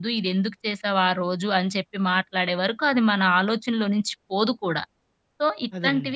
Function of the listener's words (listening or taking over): listening